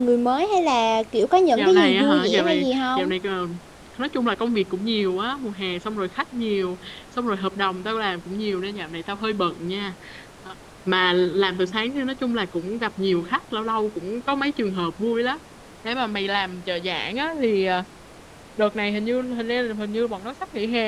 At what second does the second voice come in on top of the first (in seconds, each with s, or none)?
1.6 s